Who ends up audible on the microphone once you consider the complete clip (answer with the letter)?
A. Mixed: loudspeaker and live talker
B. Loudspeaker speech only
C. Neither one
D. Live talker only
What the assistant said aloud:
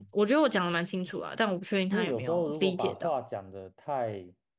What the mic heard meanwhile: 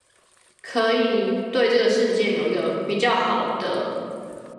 D